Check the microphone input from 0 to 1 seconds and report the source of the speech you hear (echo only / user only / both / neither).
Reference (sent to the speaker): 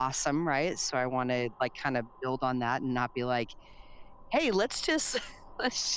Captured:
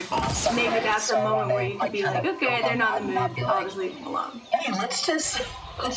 both